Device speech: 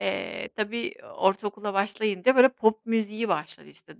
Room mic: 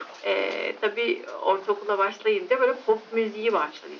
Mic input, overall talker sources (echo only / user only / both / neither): echo only